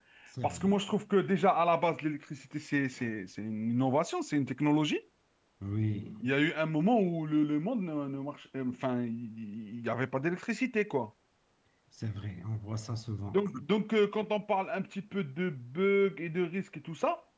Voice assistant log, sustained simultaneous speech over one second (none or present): none